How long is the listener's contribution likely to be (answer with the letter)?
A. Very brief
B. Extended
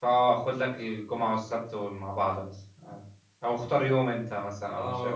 B